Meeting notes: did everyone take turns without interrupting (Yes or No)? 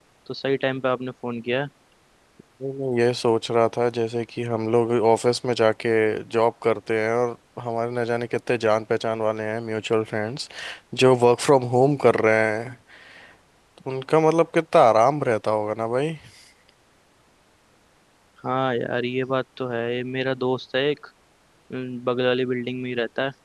Yes